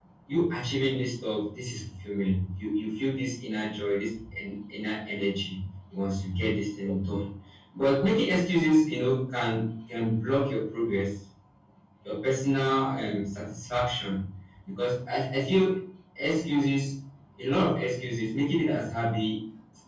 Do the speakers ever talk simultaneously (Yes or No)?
No